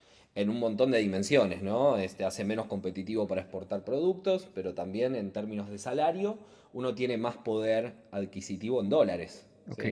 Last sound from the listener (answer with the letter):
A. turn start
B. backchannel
A